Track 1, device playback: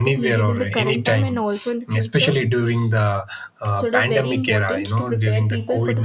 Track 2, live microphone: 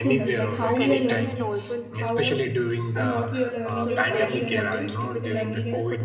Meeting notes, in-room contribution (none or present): present